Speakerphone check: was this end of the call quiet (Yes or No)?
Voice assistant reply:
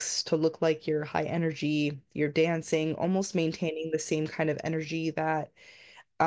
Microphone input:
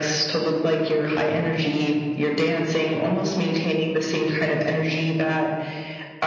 Yes